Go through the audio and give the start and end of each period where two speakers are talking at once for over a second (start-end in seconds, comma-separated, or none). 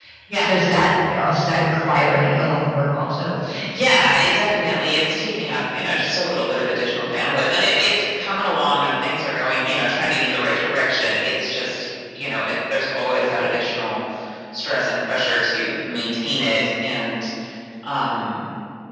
none